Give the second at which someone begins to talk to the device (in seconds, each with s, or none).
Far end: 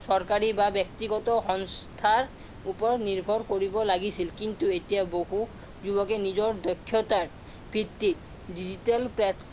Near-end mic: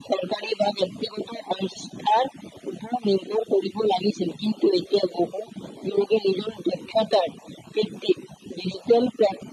none